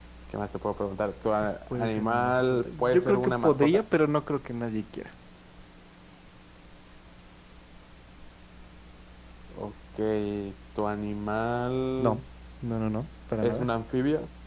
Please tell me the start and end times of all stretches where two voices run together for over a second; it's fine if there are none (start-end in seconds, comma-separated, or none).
1.7-3.8